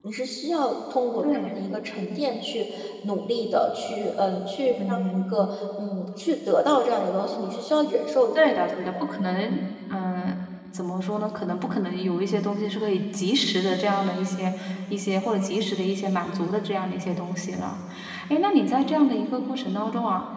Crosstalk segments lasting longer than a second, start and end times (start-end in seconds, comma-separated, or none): none